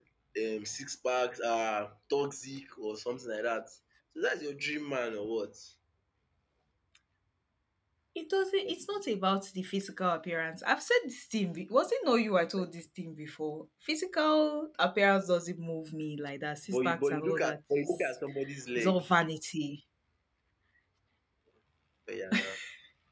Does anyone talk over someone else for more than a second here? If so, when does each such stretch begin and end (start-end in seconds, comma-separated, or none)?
16.7-18.1